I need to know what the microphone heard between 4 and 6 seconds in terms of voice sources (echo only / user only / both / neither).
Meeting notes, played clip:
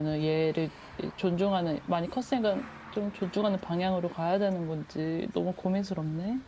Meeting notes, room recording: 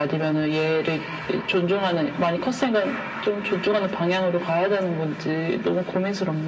echo only